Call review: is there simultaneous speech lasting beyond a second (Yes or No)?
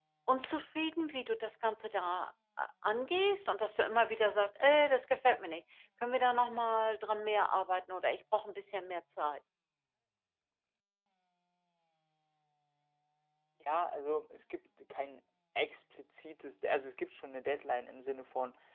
No